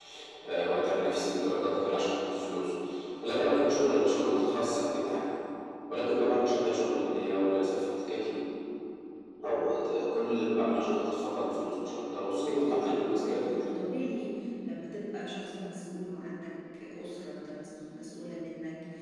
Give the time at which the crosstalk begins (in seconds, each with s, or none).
12.5 s